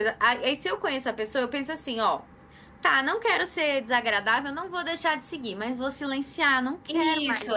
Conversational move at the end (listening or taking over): taking over